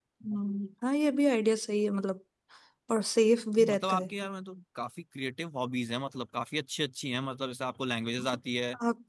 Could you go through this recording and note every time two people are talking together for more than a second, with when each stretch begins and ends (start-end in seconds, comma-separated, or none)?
none